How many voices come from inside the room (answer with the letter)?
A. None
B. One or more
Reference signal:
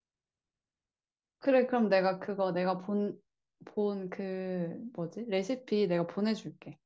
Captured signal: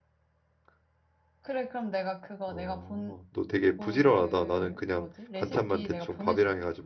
B